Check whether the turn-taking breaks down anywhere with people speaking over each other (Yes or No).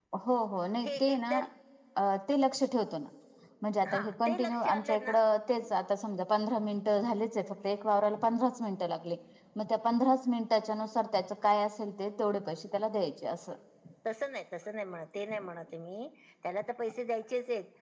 Yes